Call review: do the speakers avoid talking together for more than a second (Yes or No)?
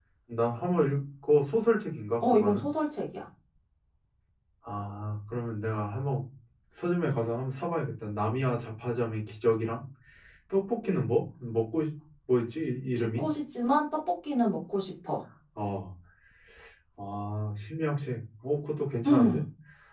Yes